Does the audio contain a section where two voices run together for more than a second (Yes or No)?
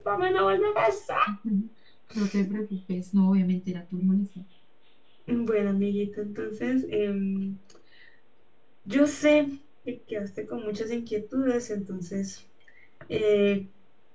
No